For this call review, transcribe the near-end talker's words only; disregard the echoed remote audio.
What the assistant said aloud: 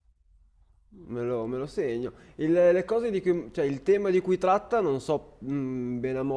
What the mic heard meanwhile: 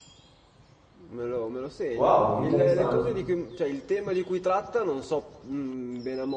Wow, interessante.

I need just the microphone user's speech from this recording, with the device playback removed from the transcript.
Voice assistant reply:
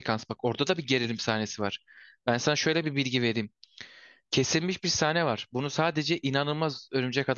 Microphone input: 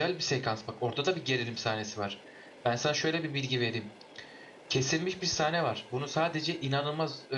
none

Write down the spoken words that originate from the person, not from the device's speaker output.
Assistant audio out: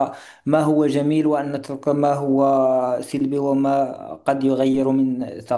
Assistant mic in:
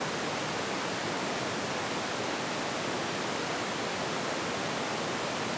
none

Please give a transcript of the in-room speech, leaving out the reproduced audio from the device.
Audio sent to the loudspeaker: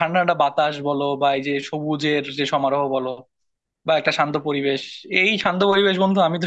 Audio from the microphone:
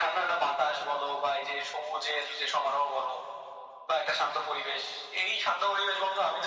none

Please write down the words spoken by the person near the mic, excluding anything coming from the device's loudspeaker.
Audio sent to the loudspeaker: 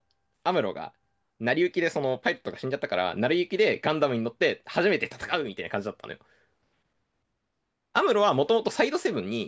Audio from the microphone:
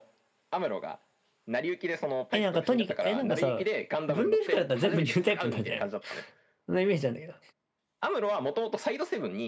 え、なんかとにかく、え、なんかさ、分類不可だったら全部ニュータイプになるんじゃないのそんなイメージなんだけど。

